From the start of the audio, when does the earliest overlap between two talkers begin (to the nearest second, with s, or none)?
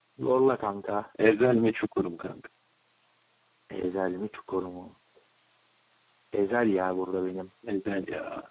none